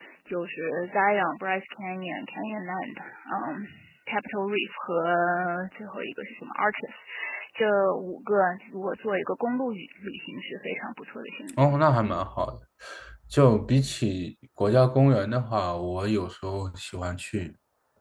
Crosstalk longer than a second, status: none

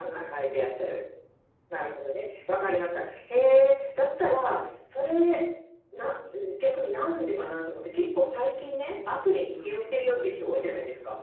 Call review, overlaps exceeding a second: present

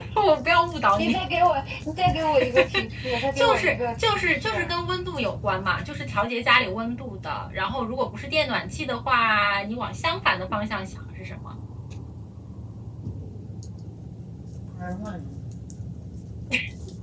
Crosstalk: present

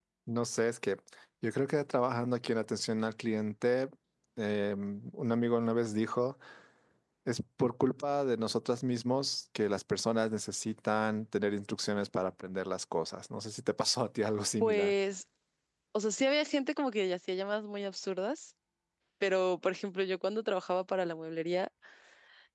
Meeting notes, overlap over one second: none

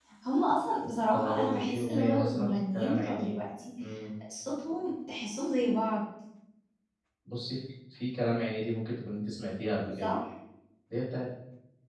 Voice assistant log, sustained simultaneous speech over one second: present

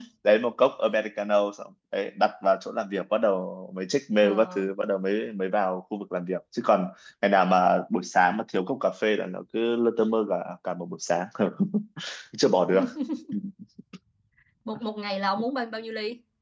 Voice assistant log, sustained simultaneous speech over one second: none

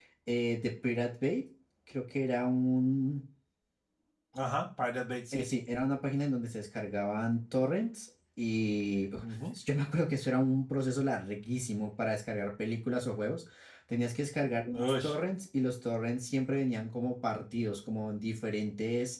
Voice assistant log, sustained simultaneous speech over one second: none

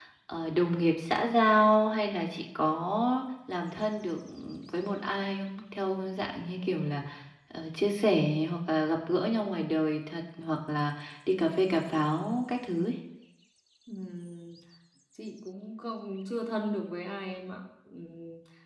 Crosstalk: none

